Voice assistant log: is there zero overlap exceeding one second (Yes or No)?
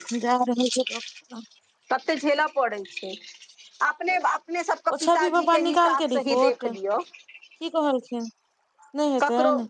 No